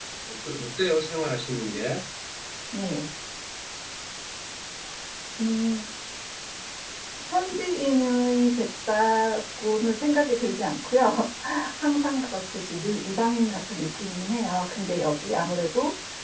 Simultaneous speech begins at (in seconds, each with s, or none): none